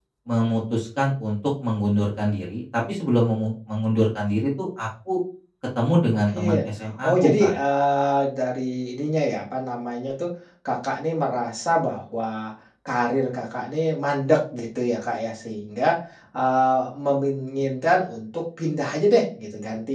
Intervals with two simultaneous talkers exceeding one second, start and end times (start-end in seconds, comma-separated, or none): none